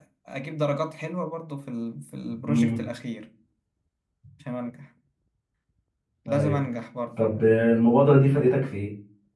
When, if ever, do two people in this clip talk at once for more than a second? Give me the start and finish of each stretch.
none

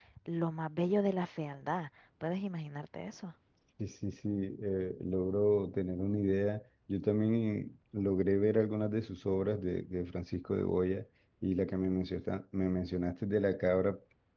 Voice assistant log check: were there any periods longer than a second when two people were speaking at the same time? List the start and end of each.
none

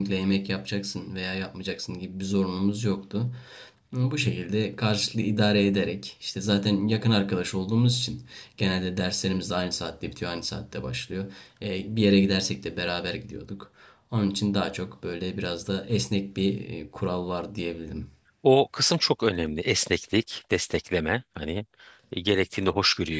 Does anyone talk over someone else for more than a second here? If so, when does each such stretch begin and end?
none

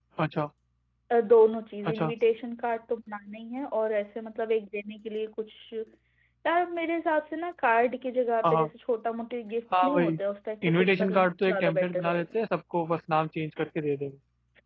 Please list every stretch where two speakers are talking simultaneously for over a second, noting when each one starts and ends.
10.7-12.3

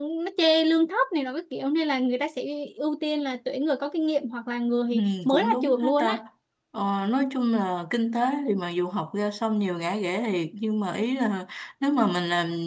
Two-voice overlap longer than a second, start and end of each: 4.9-6.2

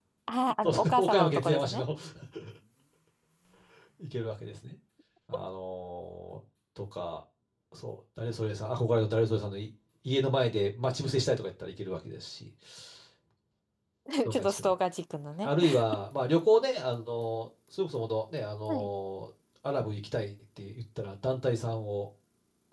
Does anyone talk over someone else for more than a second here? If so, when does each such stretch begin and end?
0.6-1.8

